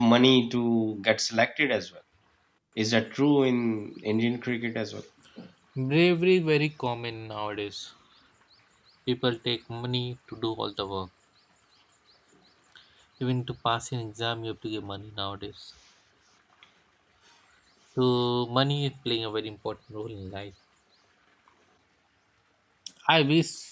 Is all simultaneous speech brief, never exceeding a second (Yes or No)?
Yes